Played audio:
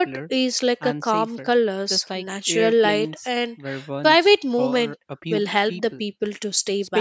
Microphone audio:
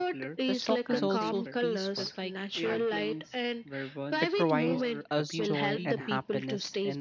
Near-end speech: present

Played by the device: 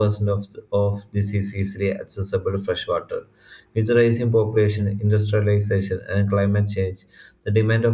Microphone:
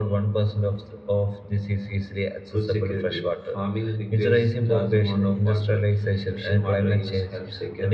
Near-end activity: present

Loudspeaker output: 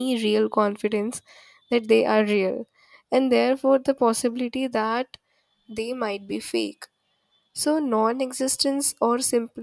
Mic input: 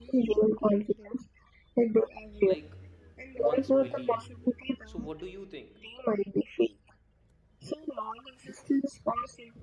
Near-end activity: present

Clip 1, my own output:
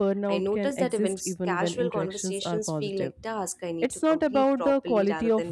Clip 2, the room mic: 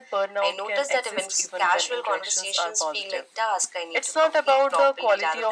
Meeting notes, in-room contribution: none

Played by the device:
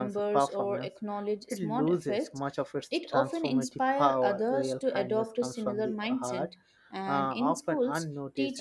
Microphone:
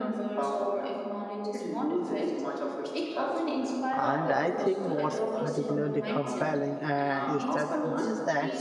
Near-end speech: present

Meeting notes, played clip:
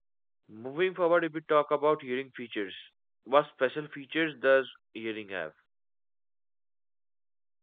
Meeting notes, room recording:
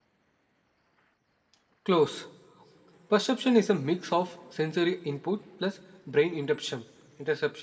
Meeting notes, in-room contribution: present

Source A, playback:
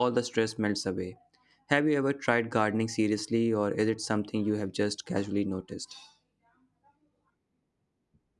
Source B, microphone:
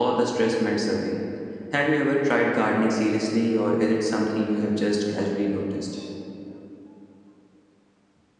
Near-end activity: none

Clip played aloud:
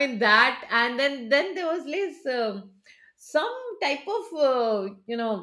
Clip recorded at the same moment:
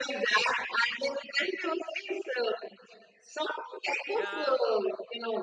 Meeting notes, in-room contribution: present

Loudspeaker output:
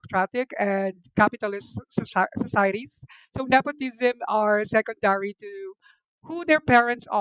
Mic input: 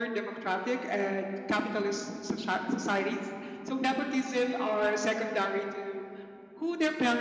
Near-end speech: none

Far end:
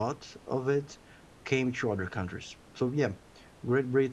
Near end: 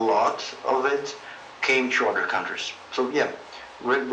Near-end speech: none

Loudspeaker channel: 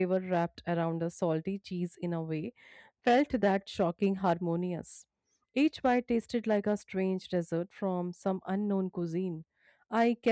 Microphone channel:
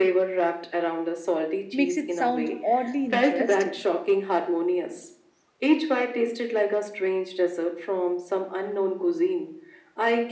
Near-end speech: present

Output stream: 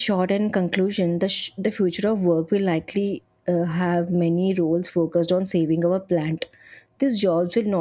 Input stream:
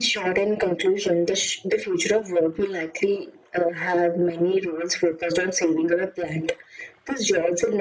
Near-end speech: none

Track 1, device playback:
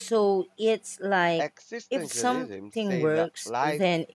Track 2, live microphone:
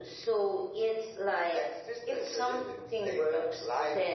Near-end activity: none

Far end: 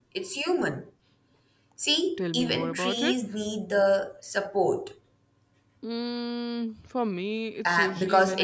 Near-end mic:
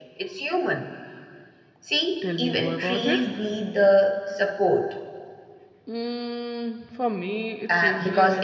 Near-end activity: none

